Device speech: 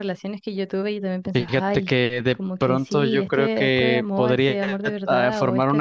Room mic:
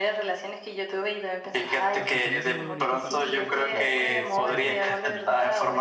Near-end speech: present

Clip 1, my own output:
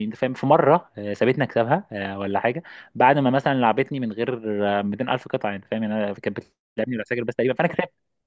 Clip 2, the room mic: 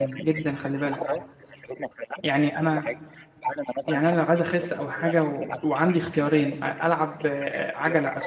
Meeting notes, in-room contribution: present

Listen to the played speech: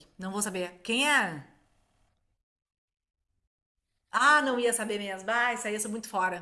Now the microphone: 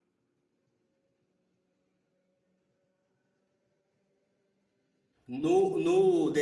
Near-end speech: present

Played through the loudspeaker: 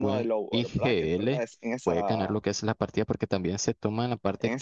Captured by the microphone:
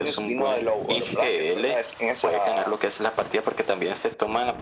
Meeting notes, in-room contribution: none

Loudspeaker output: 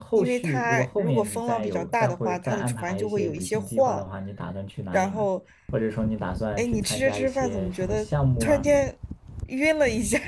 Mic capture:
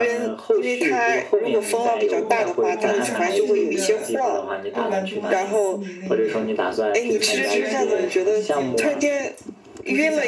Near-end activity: present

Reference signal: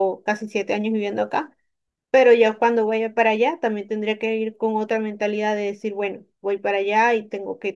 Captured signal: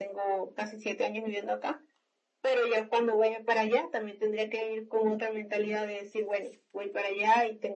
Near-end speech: none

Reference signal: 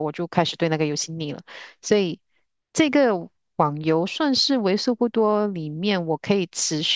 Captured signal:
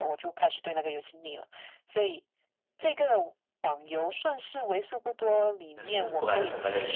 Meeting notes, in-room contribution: present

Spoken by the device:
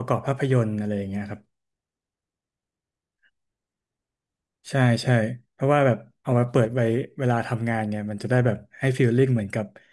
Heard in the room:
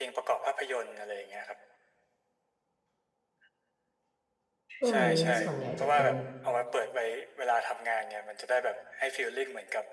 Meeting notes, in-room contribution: present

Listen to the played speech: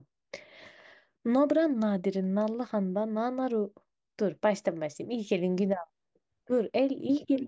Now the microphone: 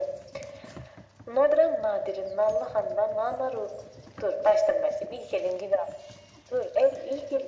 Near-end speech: none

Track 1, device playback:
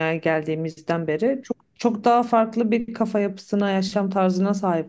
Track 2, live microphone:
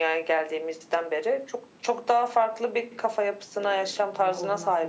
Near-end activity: present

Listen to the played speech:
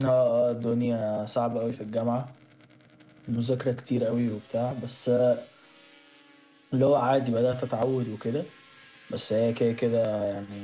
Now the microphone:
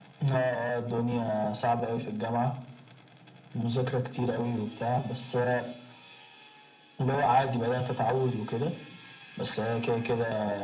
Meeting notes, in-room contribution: none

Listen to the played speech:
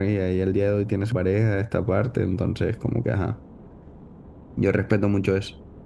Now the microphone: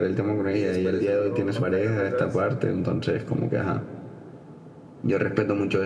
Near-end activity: present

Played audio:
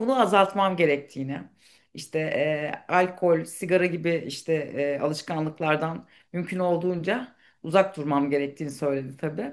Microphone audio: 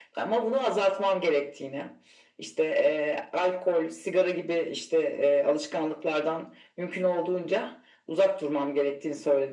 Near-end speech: none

